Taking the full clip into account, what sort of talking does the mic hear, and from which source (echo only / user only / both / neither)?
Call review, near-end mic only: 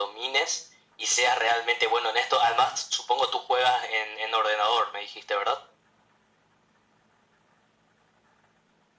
echo only